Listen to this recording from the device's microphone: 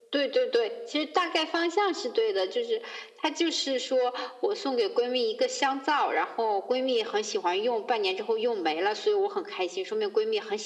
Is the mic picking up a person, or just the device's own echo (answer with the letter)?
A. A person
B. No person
B